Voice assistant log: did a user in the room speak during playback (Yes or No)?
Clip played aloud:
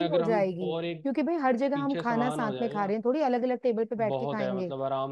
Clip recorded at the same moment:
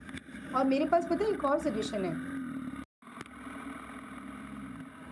Yes